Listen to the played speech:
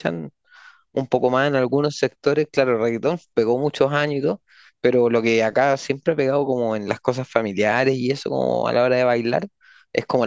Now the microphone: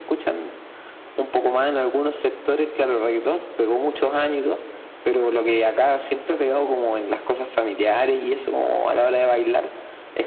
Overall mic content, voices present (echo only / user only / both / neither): echo only